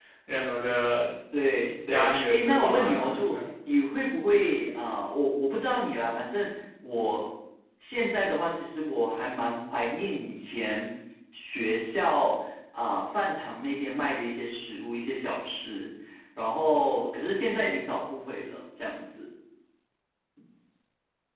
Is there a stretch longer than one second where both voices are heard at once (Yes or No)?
Yes